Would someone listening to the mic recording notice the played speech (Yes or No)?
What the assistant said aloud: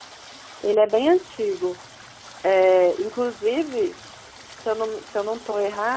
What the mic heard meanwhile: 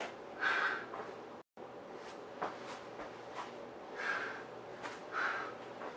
No